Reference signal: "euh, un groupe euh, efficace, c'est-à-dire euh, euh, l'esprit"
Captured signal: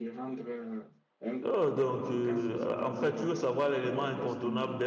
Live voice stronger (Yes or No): Yes